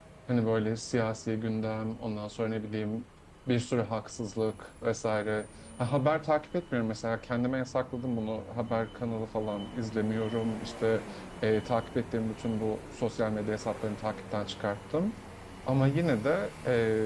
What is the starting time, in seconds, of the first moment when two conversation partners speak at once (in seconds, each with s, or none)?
none